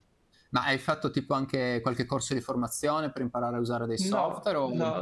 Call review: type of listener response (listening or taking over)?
taking over